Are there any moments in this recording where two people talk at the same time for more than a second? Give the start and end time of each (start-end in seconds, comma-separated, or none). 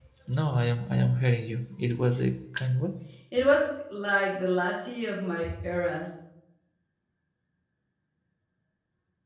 none